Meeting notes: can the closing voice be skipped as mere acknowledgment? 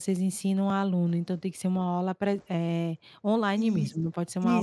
No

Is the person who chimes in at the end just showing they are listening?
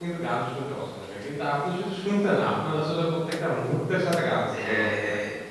No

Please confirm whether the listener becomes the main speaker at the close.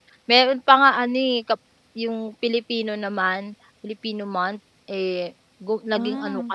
No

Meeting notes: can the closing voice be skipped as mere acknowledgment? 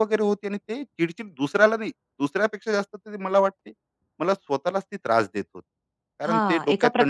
No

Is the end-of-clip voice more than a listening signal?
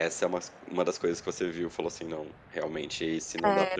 Yes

